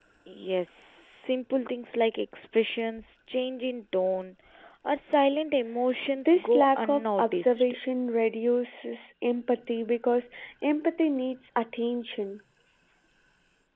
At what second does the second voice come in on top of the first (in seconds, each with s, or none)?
6.2 s